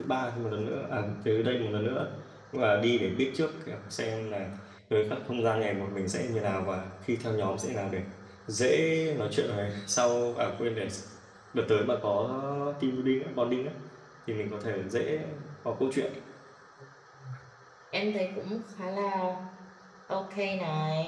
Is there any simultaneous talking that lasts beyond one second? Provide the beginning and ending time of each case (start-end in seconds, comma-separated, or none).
none